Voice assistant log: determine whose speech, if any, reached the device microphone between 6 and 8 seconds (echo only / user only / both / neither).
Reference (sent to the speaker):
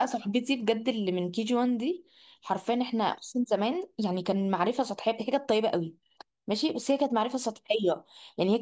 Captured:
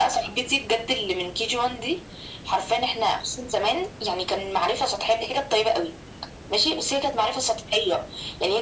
echo only